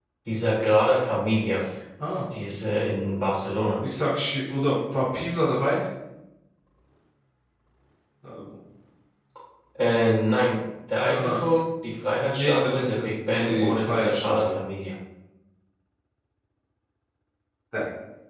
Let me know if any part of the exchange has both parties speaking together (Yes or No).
Yes